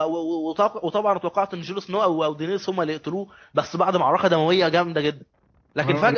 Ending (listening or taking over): taking over